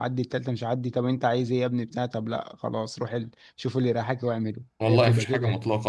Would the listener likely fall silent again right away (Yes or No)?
No